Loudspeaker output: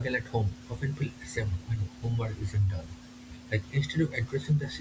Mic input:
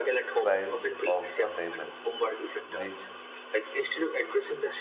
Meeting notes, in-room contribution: present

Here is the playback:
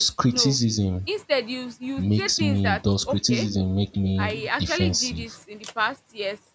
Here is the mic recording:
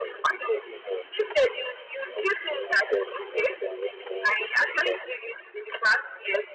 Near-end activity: none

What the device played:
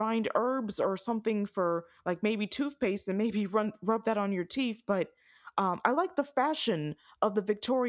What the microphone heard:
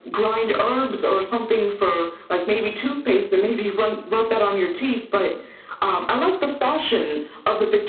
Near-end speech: none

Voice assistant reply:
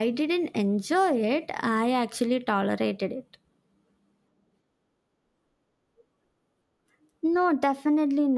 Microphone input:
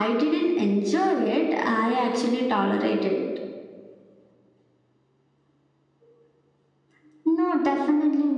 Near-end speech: none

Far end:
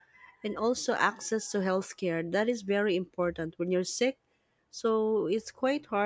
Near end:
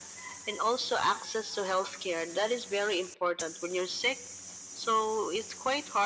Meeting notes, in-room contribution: none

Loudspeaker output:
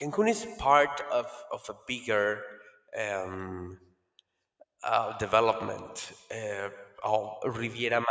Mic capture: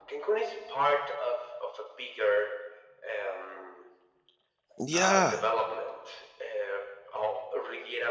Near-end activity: present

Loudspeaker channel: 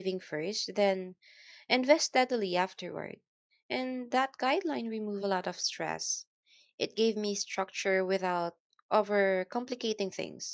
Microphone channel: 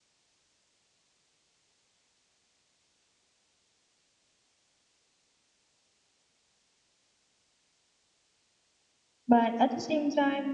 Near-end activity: present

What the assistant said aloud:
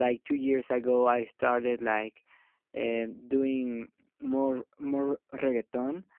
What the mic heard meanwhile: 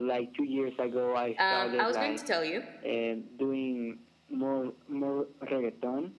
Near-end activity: present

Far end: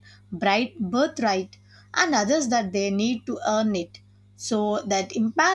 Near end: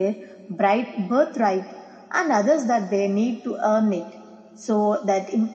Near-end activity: none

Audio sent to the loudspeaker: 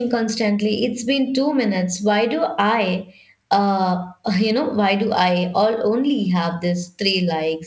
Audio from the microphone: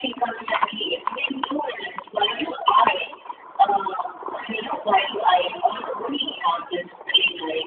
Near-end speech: none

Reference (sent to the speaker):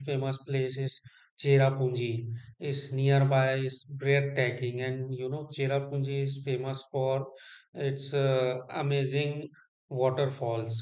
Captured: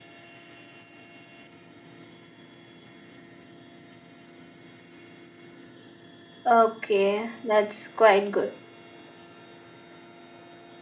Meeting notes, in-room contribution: present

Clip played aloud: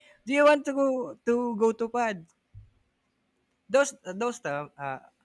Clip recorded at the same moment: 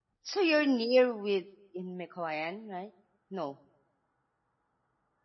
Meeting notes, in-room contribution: present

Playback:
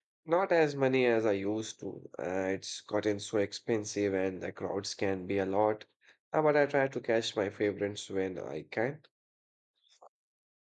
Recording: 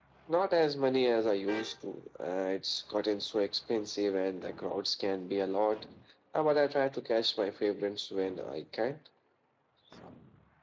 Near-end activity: none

